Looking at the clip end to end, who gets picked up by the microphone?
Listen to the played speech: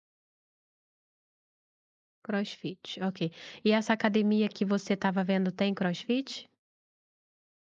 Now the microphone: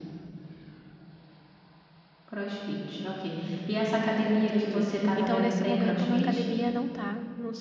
both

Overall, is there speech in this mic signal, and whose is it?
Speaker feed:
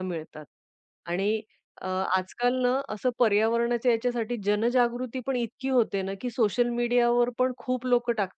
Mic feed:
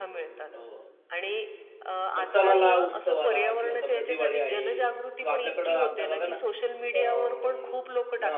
both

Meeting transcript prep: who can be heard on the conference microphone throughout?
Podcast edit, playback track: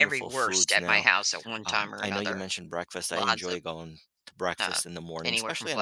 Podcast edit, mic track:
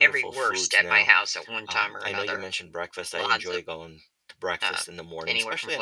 echo only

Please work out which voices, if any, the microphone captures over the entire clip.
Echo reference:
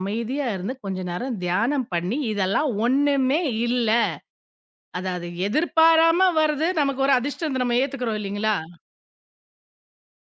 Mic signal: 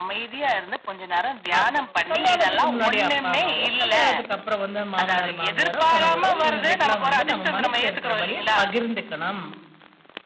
both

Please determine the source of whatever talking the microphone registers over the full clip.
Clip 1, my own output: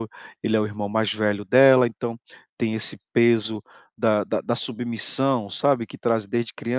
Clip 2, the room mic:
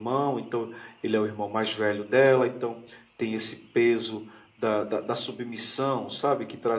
echo only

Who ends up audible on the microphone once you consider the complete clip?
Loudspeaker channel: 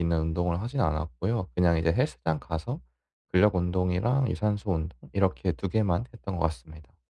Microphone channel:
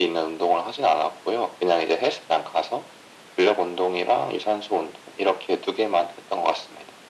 echo only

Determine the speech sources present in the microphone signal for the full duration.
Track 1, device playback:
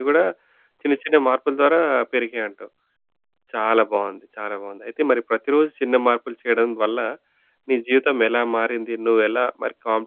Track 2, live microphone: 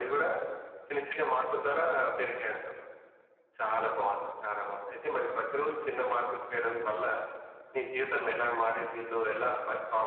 echo only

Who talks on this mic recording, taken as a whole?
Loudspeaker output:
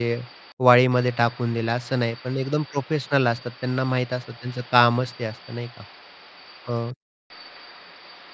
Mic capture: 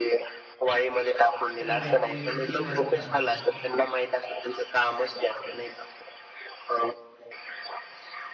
both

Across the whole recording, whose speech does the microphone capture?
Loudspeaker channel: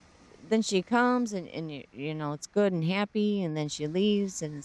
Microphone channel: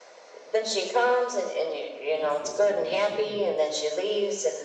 both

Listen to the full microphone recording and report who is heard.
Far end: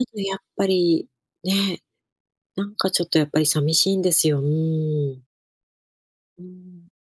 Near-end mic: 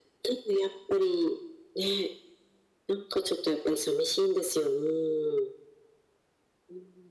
echo only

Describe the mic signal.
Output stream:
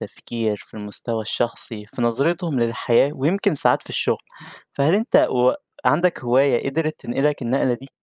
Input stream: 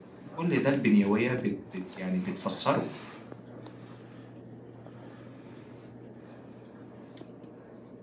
user only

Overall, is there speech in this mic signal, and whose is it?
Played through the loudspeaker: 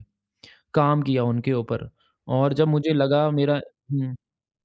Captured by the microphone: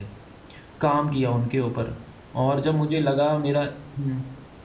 echo only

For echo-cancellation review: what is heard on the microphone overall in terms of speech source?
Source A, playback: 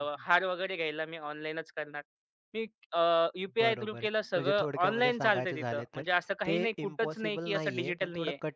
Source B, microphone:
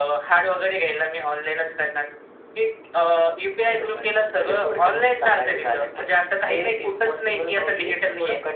echo only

